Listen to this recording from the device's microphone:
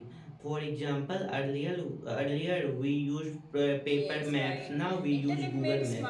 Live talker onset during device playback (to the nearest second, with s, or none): 4 s